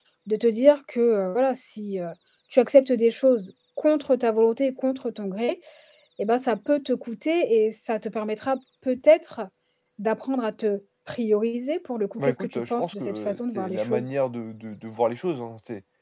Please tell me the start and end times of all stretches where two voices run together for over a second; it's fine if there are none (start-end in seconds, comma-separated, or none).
12.2-14.1